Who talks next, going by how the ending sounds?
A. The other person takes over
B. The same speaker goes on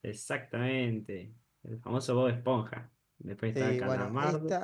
A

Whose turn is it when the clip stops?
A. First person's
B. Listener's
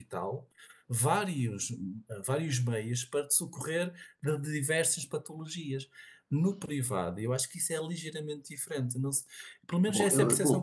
B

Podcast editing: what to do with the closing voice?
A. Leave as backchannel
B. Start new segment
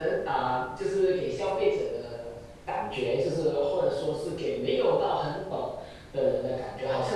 A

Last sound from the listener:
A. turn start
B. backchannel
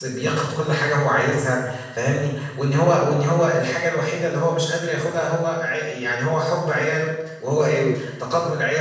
B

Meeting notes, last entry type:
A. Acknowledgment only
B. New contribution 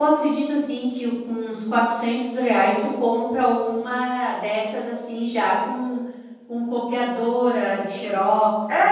B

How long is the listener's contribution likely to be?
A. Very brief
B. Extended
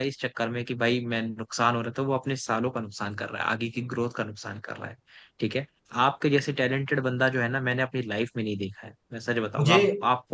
A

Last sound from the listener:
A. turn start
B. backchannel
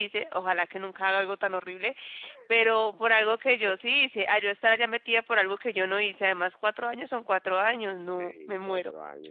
A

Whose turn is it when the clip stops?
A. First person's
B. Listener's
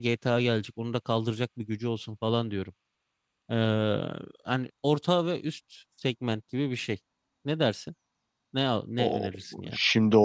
B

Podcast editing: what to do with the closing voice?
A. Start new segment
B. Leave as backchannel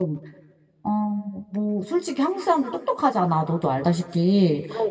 B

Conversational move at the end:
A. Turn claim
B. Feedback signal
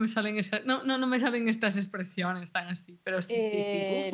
A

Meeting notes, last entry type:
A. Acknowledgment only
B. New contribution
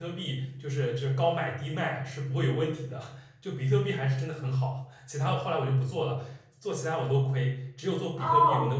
B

